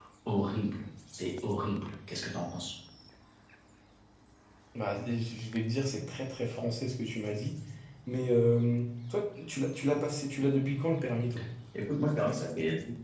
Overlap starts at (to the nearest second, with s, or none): none